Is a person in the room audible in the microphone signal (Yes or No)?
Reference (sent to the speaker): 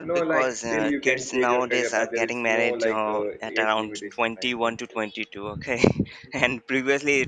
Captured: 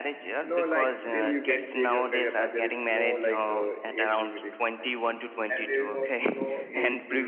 Yes